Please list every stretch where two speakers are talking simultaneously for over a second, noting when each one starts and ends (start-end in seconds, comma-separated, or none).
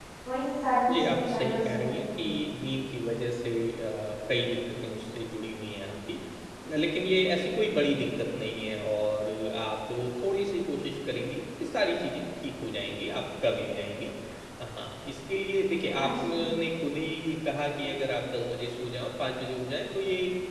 0.9-2.2